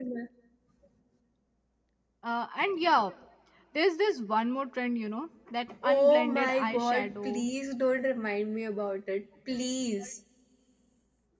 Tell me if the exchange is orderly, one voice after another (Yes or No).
No